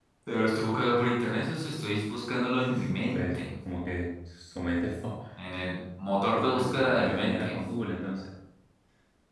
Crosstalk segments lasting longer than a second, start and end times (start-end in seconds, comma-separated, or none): 6.3-7.5